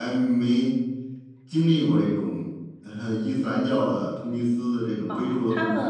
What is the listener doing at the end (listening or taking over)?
taking over